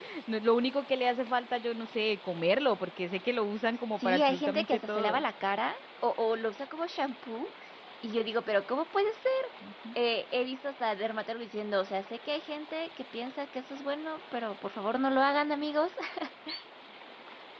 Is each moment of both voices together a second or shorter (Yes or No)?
No